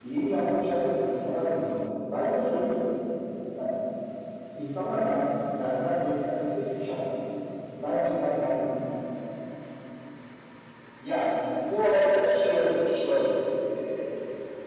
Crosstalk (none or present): none